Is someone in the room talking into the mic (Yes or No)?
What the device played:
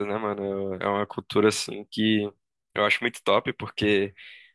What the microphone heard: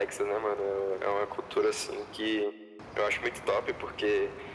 No